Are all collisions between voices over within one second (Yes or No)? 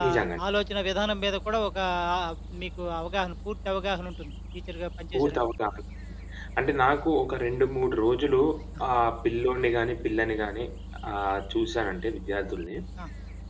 Yes